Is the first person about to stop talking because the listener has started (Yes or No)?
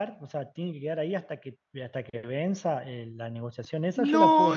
Yes